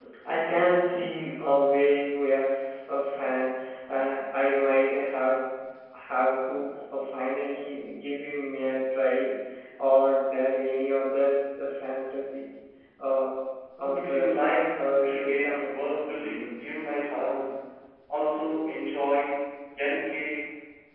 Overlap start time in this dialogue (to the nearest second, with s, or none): 14 s